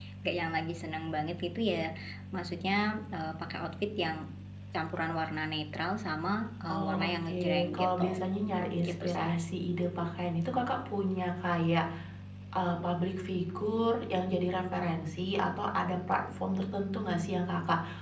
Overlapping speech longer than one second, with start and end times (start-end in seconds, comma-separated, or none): 6.7-8.2